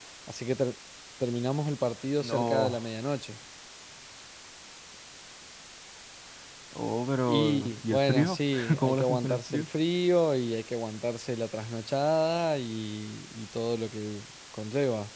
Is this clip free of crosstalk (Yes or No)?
No